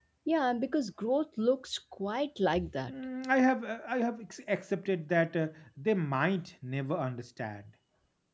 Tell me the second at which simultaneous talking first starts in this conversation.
none

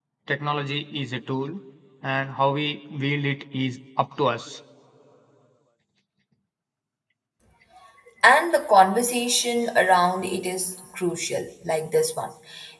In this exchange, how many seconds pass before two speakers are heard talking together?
none

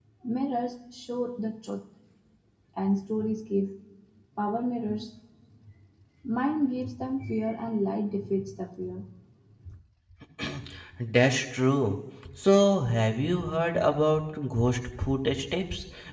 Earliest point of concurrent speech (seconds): none

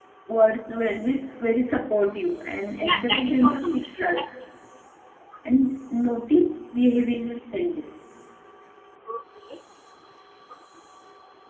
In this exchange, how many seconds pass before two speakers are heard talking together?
3 s

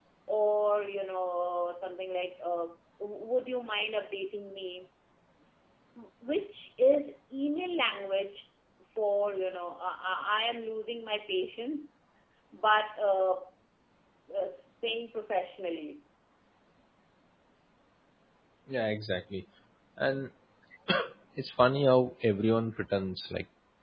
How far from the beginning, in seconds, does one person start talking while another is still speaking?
none

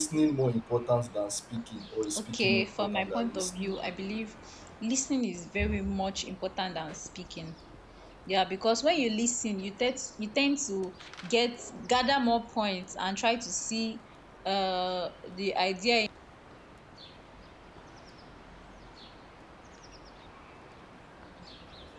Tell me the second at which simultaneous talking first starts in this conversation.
2 s

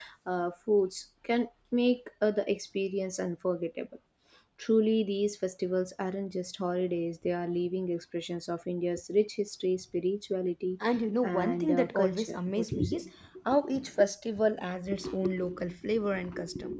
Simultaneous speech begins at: 11 s

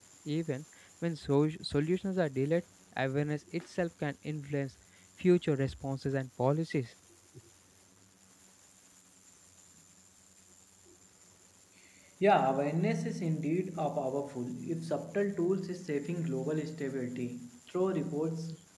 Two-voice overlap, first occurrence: none

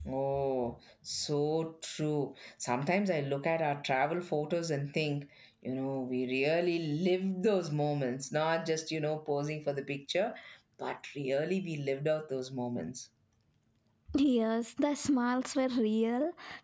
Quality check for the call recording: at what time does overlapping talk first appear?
none

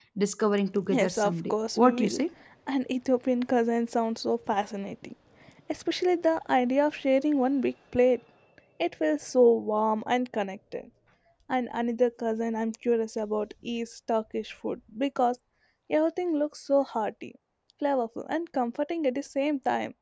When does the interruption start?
1 s

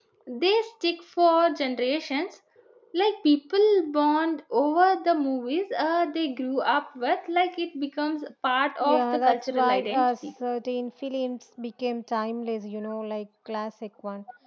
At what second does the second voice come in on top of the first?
9 s

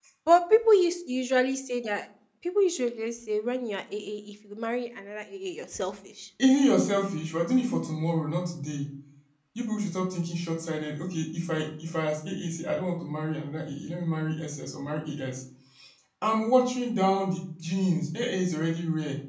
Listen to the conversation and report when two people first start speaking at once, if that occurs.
none

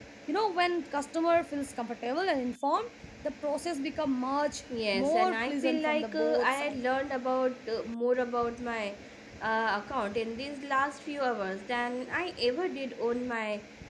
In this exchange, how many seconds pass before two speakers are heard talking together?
5 s

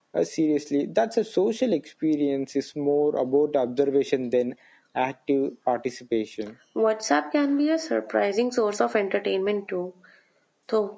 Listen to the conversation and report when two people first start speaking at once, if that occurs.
none

